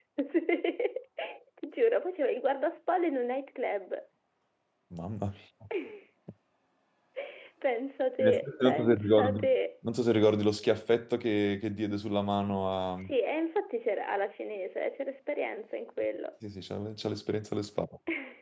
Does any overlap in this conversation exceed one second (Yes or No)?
Yes